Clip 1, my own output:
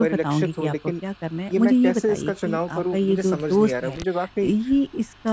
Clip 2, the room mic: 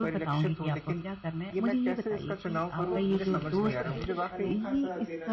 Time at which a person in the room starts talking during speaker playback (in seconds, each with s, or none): 2.8 s